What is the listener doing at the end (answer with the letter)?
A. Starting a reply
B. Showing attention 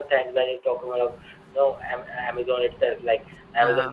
B